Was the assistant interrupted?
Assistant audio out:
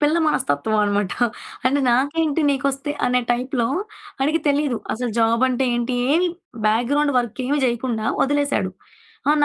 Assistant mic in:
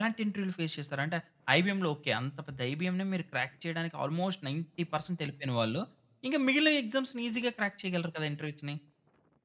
Yes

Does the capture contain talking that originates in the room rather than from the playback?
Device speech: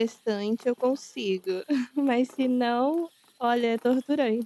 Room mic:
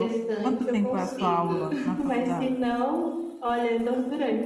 Yes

